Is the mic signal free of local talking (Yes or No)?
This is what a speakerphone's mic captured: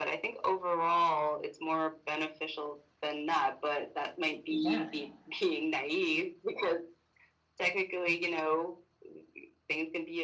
No